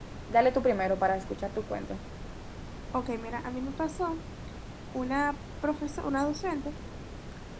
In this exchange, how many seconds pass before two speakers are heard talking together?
none

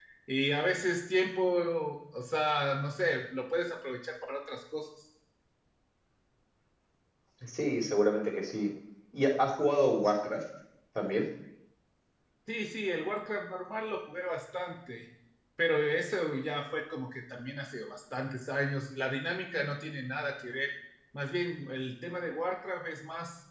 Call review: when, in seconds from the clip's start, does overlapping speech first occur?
none

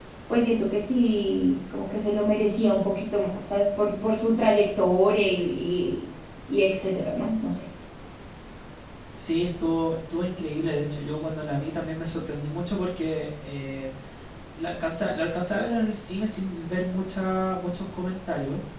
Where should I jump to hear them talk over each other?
none

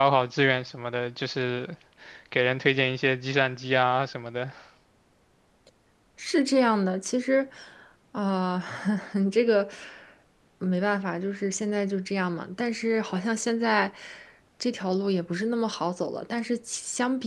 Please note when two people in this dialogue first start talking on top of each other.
none

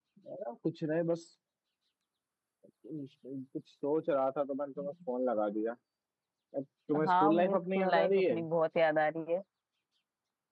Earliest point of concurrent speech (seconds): 7.1 s

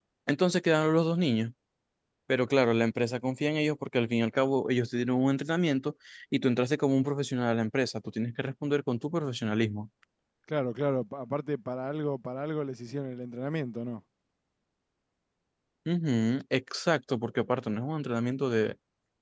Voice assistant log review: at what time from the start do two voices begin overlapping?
none

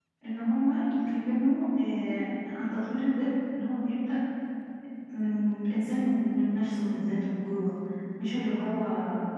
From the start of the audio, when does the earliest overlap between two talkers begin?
none

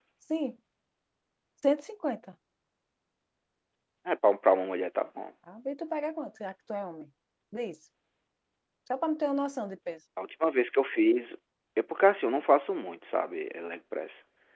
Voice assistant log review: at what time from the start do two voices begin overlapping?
none

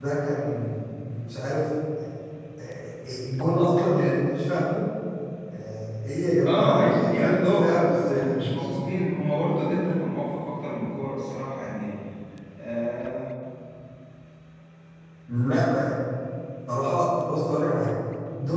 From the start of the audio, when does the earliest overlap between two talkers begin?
6.5 s

